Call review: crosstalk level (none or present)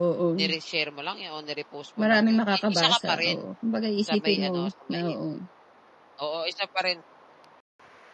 present